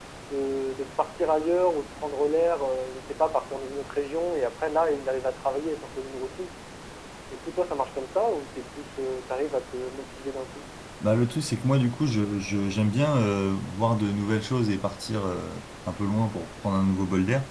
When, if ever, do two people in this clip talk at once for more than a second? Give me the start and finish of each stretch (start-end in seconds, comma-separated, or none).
none